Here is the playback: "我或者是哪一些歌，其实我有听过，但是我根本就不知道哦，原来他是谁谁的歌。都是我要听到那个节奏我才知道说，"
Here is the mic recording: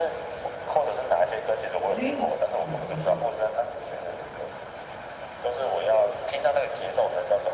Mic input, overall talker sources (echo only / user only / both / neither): both